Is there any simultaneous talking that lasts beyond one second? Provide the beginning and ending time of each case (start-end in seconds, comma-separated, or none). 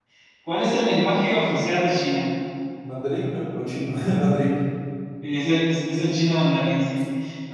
none